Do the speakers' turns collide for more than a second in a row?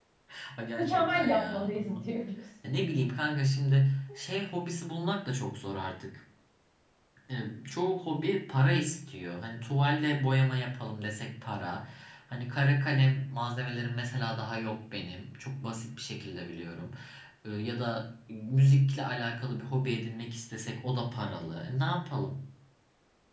Yes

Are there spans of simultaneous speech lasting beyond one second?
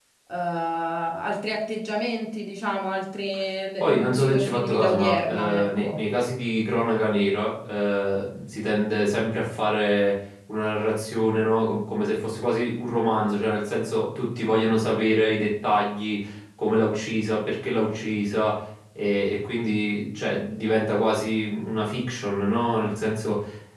Yes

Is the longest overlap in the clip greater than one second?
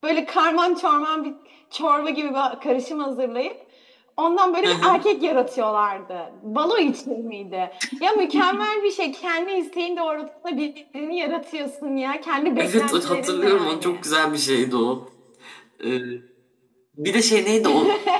Yes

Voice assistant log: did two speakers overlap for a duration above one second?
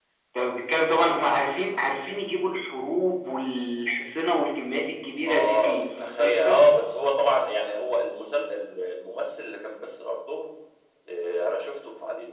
Yes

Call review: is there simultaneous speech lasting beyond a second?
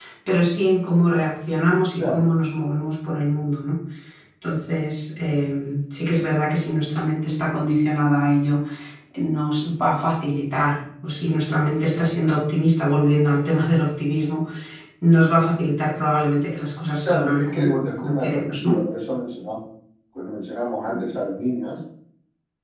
Yes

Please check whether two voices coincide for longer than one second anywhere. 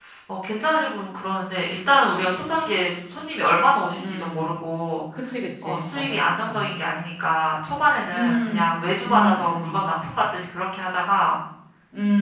Yes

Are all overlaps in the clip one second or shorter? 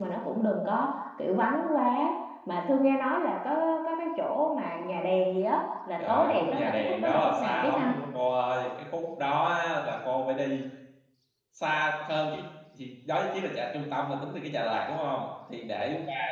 No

